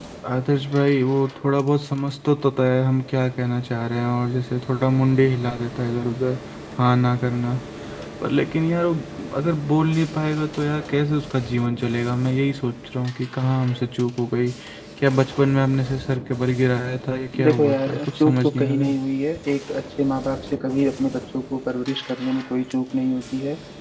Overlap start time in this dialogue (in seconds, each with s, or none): 17.3 s